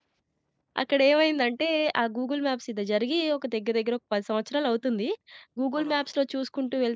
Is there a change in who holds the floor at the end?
No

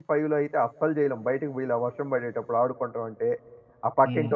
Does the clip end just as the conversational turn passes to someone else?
Yes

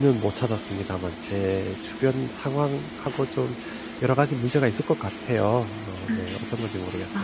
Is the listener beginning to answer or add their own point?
Yes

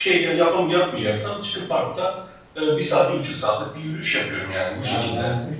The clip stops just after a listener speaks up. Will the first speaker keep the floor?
No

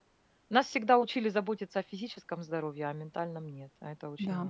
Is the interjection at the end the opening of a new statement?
Yes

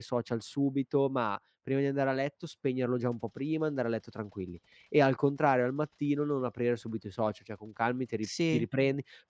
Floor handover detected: No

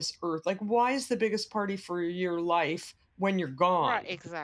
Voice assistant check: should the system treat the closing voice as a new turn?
Yes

